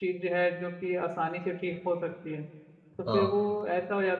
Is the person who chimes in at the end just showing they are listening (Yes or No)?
Yes